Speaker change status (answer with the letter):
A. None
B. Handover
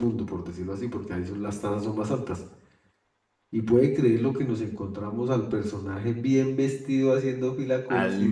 A